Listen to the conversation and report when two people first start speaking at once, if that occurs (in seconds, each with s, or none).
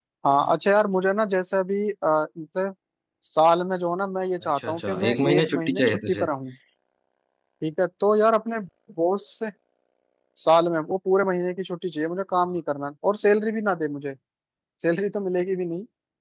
4.5 s